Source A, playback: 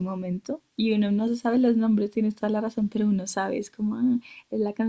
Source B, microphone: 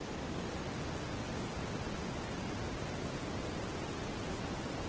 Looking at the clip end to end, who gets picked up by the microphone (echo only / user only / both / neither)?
neither